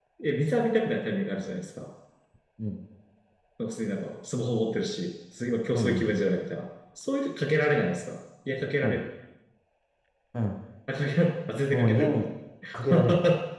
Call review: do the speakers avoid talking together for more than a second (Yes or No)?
Yes